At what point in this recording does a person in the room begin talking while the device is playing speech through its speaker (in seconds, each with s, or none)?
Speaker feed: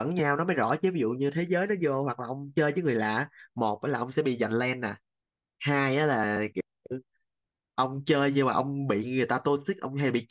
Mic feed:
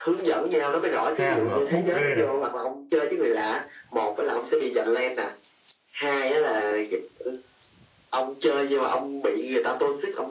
1.2 s